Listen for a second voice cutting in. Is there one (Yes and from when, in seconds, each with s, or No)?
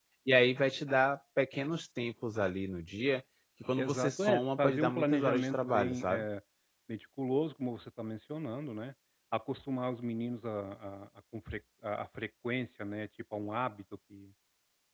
Yes, from 3.8 s